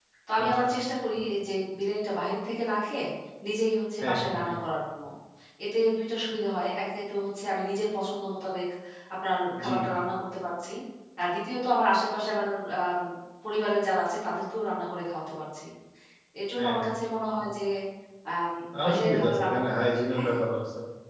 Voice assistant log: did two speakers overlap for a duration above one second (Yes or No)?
Yes